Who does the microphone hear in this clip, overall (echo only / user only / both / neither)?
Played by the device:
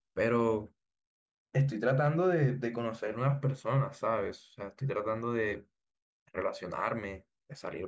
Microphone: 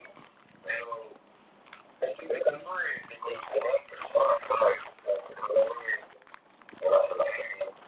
echo only